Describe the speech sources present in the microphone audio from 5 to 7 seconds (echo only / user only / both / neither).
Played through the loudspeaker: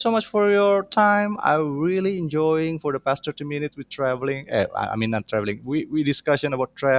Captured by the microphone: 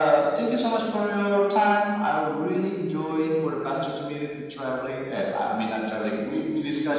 echo only